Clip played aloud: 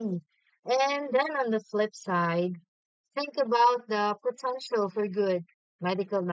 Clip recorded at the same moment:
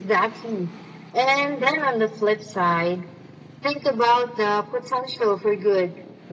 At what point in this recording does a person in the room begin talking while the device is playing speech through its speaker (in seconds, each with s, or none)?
none